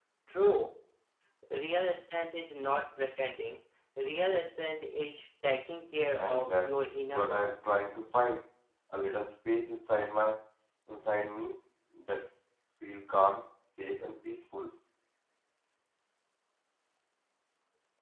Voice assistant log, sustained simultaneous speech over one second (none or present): present